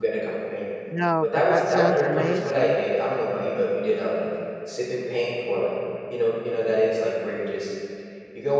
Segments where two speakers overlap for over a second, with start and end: 1.2-2.8

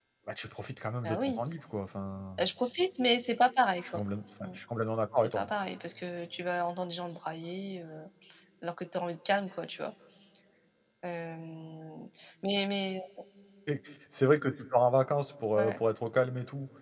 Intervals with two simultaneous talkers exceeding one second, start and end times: none

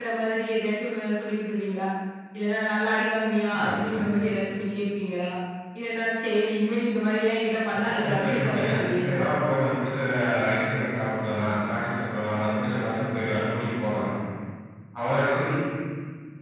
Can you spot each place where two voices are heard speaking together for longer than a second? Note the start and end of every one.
7.7-9.2

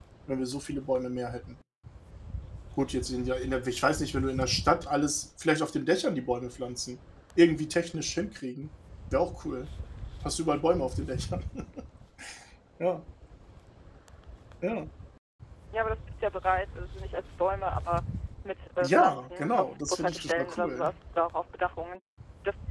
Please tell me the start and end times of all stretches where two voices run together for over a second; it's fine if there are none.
18.8-20.9

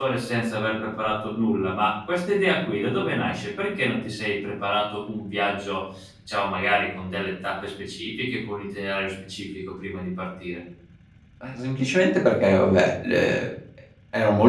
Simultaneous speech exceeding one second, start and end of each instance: none

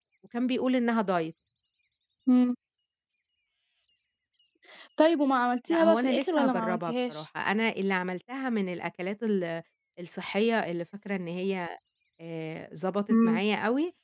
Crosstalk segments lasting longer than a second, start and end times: 5.7-7.2

